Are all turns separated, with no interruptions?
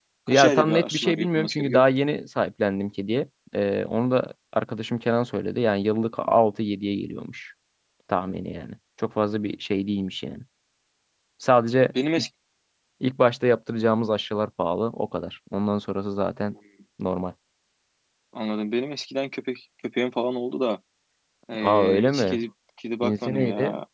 No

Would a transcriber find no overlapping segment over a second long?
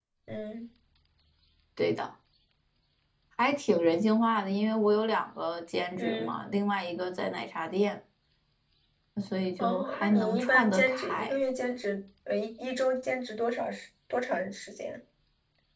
No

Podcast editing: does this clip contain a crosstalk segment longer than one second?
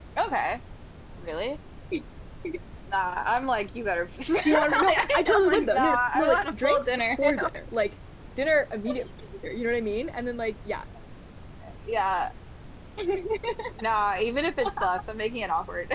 Yes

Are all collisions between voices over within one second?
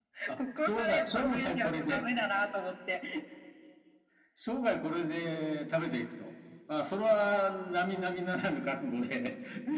No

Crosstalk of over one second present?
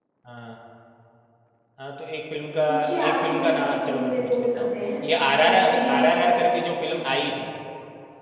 Yes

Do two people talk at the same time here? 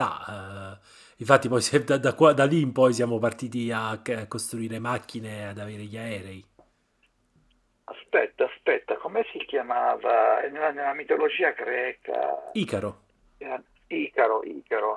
No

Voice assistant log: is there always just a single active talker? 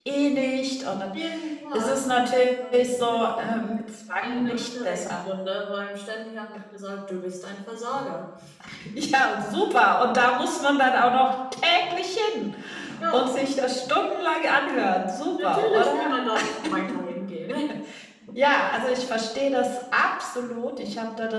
No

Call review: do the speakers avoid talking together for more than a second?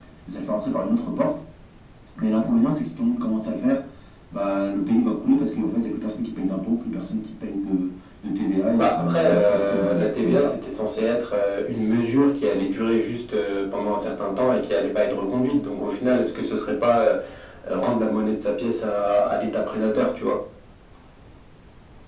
No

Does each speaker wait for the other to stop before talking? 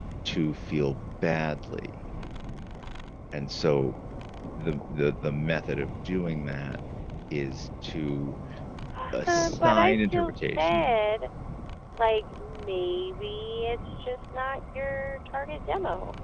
No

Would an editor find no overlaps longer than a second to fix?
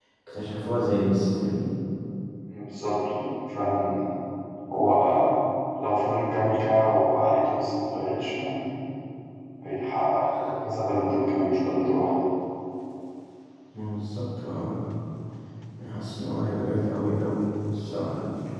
Yes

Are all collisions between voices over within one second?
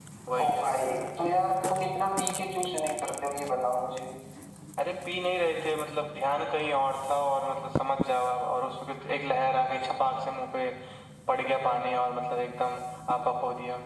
Yes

